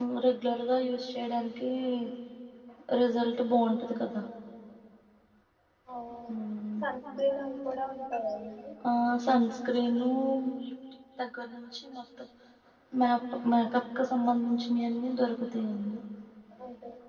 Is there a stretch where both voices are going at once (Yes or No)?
No